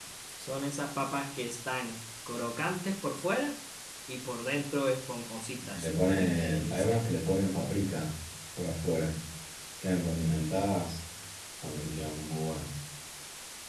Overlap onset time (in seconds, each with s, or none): 5.6 s